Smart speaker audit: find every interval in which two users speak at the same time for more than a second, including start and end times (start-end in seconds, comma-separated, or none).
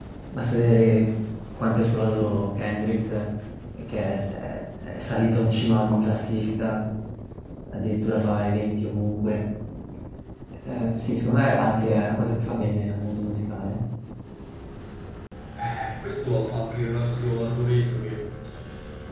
none